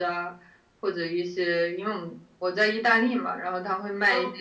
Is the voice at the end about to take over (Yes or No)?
No